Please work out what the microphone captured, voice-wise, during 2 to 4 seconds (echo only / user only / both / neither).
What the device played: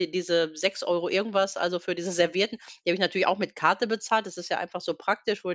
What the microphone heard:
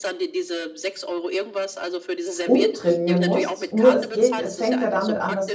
both